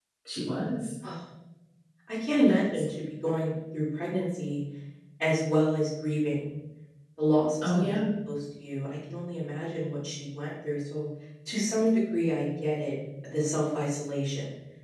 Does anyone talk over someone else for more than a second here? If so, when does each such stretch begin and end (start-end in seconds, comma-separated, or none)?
none